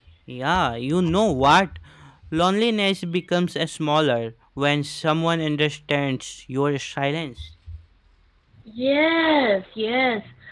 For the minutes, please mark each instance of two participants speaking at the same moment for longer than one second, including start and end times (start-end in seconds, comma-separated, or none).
none